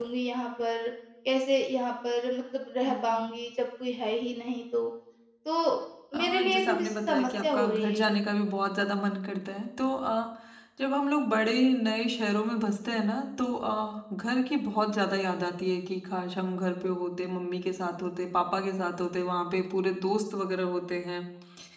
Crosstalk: present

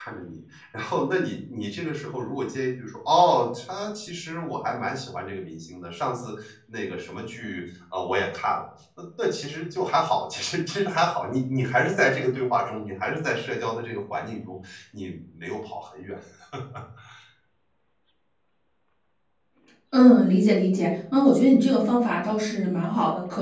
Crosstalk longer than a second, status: none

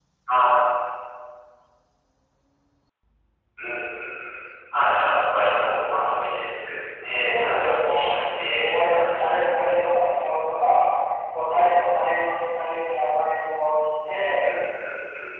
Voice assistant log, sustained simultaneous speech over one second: present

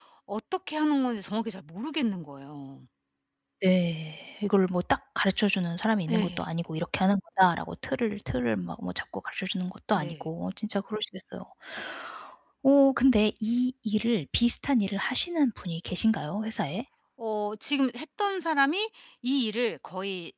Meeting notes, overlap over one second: none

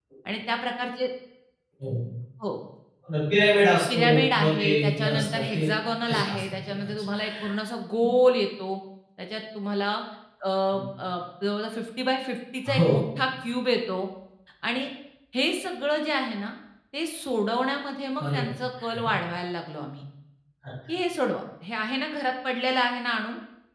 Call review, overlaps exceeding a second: present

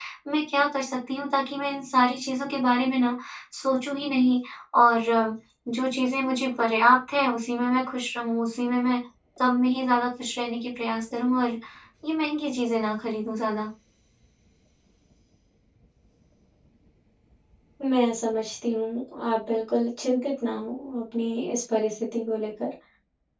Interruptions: none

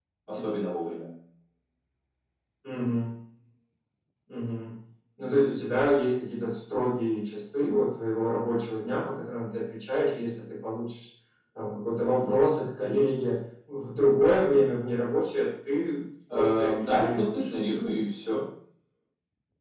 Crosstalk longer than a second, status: present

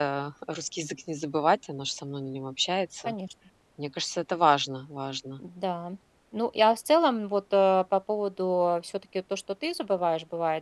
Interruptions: none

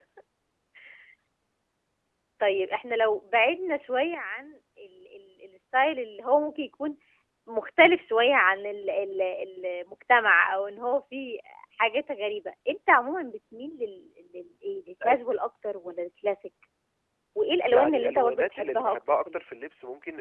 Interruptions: present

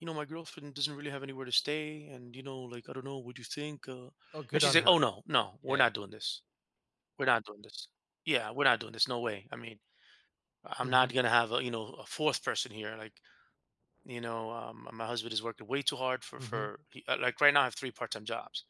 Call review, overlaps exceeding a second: none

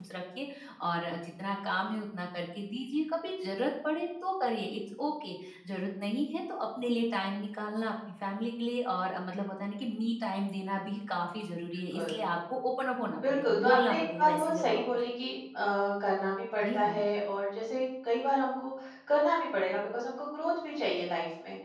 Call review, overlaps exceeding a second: present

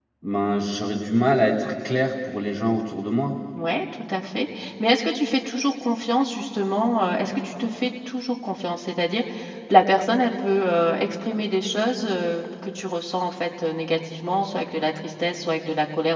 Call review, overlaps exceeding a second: none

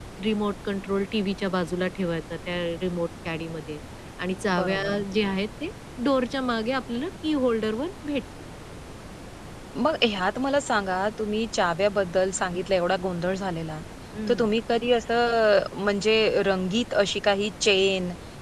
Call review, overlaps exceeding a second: none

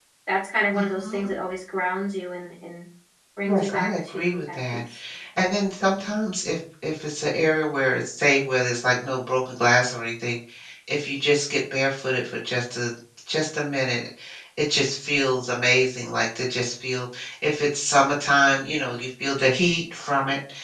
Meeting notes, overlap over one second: present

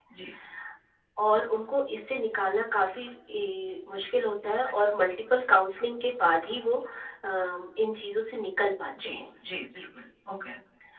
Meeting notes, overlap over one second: none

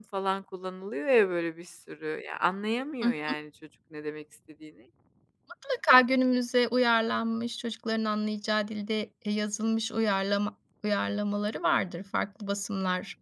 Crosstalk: none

